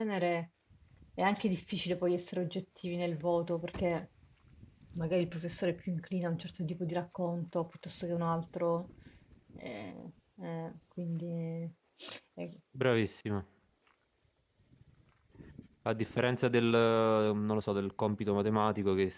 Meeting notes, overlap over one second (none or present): none